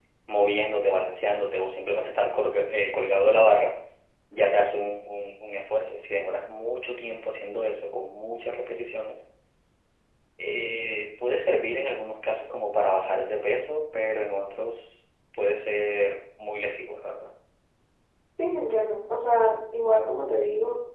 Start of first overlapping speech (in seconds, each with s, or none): none